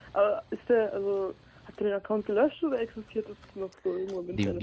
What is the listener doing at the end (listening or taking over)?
taking over